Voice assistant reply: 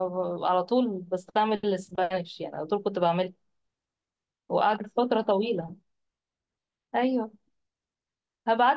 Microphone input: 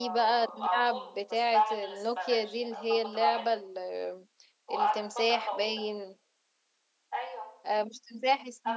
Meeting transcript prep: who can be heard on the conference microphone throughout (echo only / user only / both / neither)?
both